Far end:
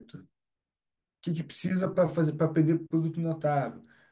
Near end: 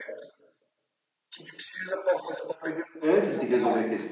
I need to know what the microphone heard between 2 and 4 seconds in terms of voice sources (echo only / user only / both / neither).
both